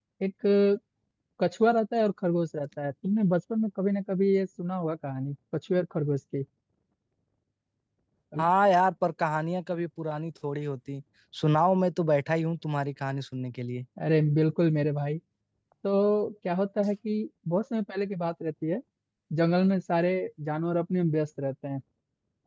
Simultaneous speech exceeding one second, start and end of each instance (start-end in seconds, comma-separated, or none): none